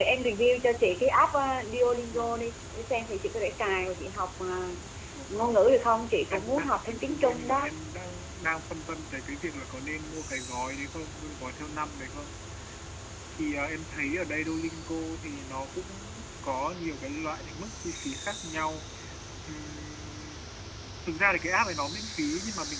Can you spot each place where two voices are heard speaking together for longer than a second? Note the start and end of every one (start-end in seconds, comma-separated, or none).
6.3-7.7